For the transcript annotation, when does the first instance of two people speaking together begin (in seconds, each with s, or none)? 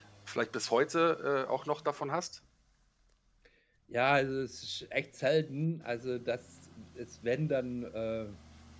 none